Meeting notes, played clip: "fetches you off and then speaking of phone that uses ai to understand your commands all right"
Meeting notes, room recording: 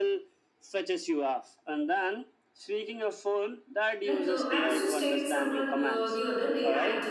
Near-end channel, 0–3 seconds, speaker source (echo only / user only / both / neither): echo only